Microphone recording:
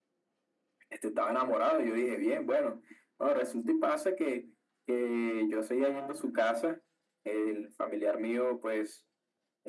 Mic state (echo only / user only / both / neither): echo only